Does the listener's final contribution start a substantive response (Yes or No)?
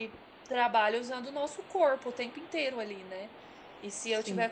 No